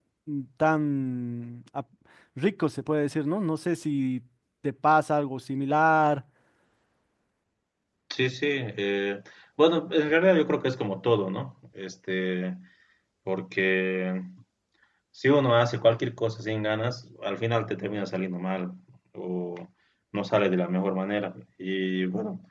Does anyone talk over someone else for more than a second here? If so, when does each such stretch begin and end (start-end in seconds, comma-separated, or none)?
none